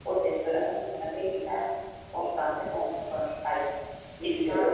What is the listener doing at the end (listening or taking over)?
listening